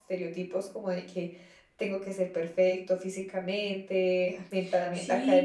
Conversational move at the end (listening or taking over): taking over